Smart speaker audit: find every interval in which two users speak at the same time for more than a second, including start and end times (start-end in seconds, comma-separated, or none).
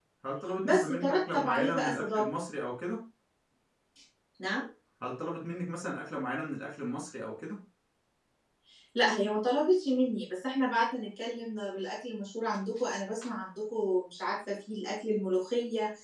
0.6-2.4